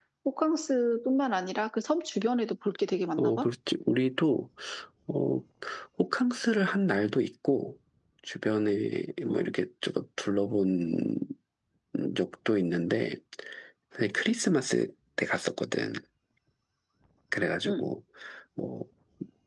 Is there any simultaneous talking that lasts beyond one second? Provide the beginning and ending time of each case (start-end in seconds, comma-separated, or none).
none